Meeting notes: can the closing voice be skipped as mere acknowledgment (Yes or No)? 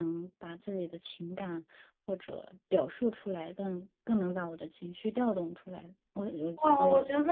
No